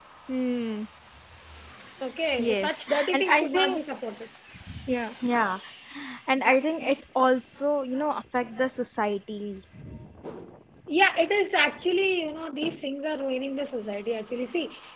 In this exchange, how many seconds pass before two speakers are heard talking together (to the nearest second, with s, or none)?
2 s